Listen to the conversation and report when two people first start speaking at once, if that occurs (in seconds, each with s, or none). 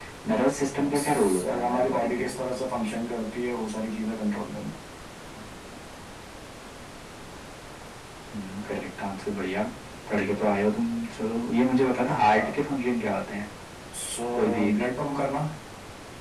0.8 s